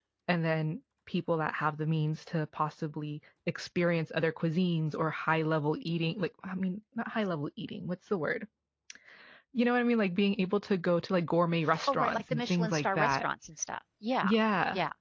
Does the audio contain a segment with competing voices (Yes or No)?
Yes